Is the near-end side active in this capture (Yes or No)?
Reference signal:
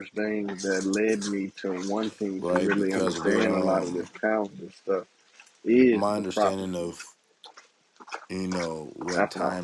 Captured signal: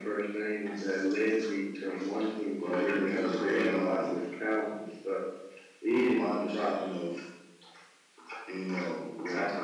No